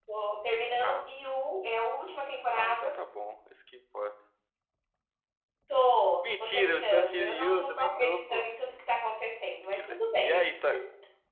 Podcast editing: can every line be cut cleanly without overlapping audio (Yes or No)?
No